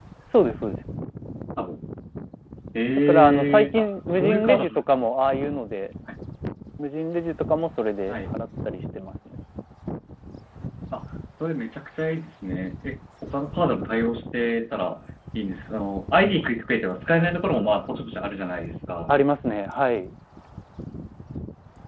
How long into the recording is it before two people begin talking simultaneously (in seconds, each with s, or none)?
3.1 s